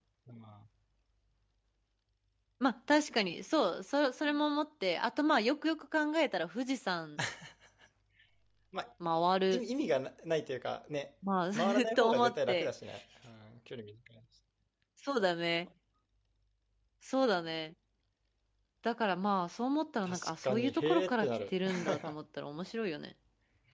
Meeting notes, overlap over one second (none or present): present